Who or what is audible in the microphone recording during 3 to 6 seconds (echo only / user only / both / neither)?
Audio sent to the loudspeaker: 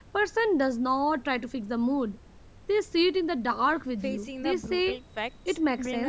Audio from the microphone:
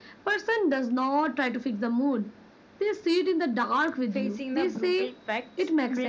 echo only